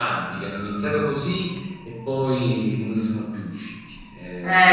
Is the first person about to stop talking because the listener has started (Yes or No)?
Yes